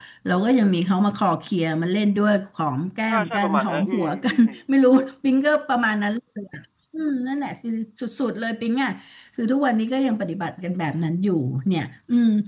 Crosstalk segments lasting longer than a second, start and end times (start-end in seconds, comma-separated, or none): 3.1-4.6